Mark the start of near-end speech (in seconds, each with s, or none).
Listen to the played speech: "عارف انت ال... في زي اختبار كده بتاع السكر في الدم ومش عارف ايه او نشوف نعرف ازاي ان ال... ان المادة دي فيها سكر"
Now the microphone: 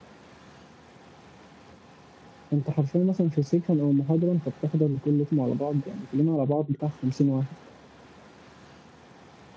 2.5 s